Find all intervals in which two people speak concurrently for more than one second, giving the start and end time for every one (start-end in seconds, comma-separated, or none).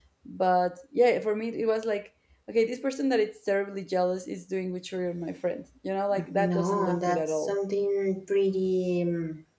6.3-7.5